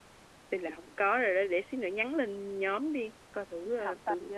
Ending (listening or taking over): taking over